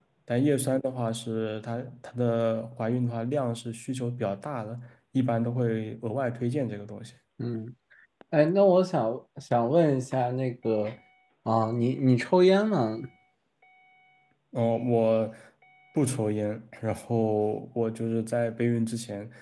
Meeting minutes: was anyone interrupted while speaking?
No

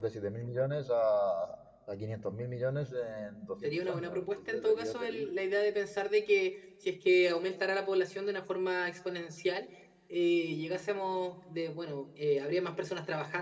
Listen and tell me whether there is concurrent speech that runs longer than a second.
Yes, from 3.6 s

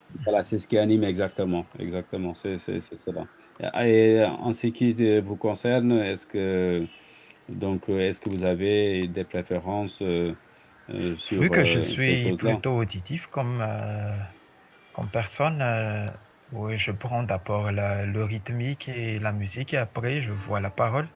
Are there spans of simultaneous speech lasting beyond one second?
Yes, from 11.4 s

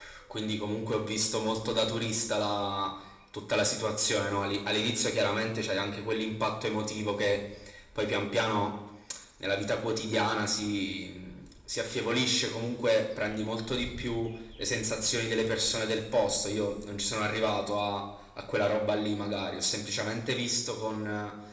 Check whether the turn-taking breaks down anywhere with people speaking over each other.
No

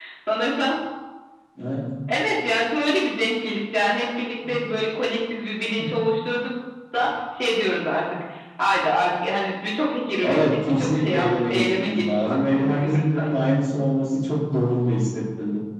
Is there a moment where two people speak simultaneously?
Yes, from 10.2 s

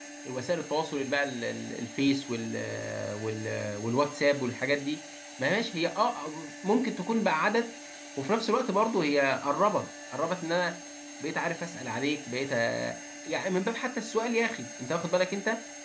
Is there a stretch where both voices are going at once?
No

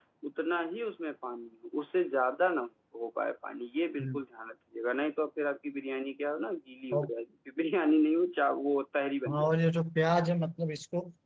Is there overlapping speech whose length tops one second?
No

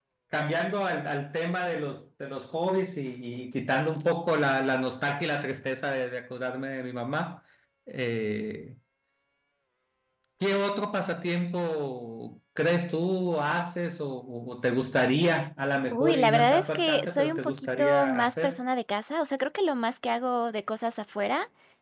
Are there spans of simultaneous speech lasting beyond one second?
Yes, from 15.9 s

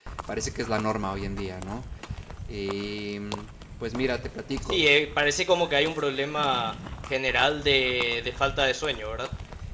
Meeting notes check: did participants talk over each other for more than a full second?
No

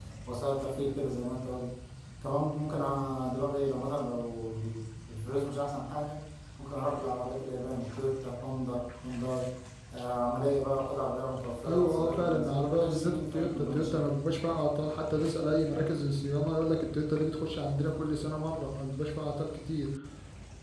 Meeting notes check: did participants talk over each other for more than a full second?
Yes, from 11.6 s

